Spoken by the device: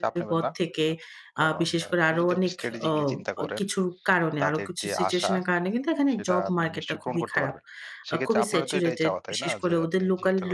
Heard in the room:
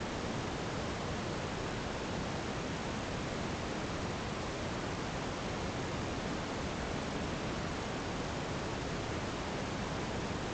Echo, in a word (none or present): none